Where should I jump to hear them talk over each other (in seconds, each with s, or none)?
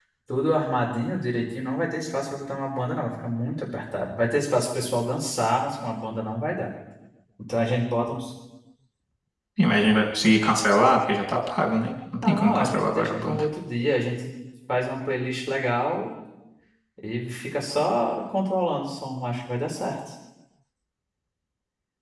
12.2 s